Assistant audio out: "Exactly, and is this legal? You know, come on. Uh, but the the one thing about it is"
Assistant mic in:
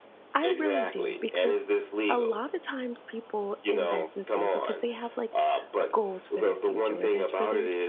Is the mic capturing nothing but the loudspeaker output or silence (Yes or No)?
No